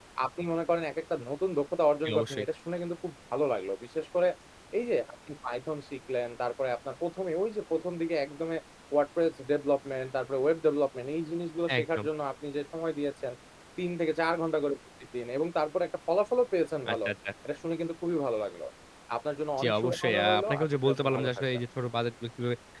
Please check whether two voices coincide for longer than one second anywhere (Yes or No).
Yes